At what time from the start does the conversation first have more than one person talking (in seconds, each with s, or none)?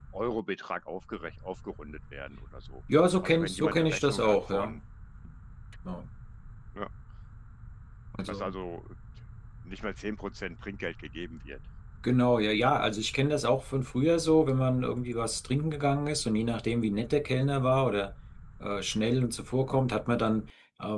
3.2 s